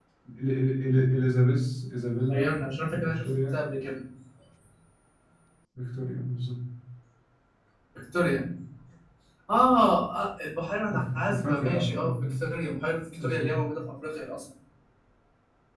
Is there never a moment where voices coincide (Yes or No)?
No